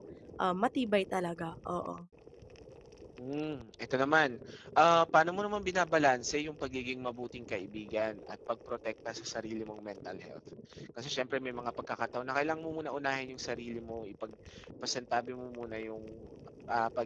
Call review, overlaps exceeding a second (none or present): none